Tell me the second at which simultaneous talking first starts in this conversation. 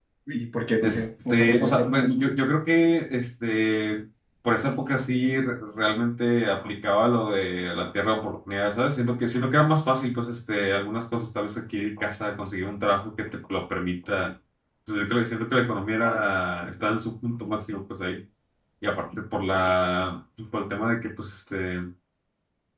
1 s

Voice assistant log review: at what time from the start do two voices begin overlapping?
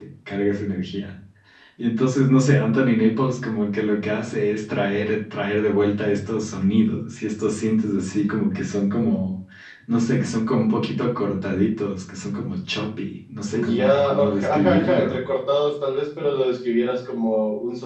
14 s

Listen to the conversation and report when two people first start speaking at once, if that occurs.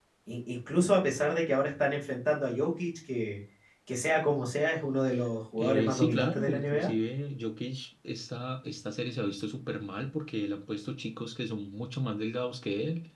6 s

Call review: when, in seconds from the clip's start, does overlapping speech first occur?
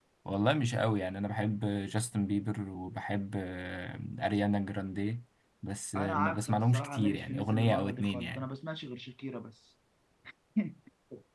6 s

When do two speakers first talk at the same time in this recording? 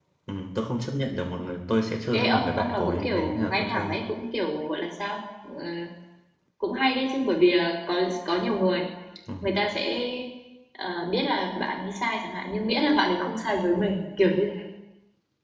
2 s

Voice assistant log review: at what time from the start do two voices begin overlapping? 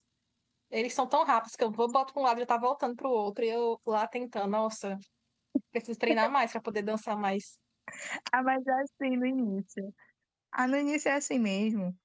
none

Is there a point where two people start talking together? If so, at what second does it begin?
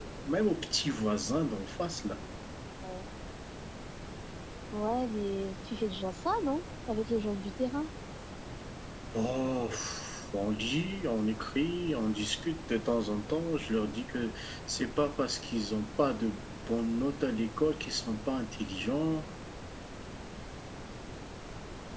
none

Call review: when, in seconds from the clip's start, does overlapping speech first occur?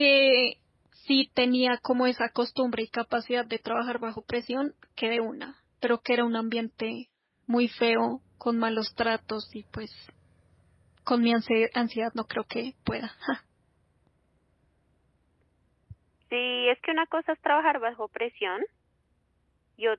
none

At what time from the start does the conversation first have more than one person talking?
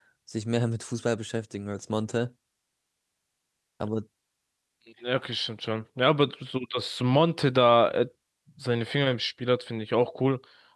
none

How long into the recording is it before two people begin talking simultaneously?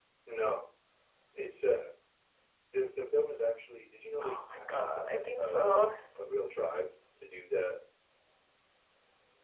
4 s

